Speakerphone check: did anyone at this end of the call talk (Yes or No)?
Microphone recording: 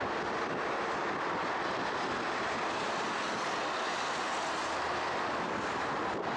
No